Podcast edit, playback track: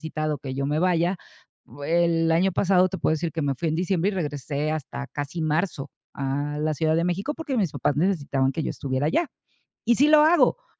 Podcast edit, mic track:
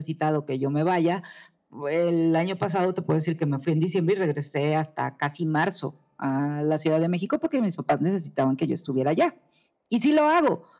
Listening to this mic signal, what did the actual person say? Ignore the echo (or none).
none